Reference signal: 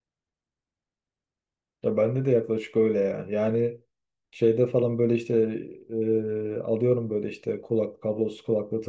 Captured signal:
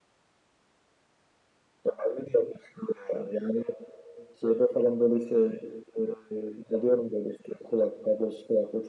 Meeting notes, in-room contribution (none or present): none